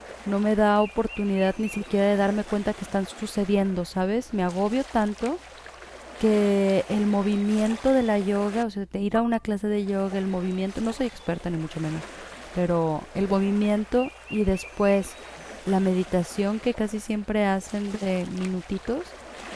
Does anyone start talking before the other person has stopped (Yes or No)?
No